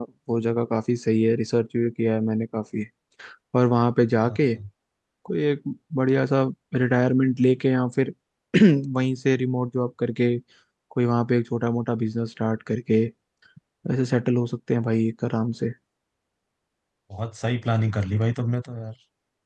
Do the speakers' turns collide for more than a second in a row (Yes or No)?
No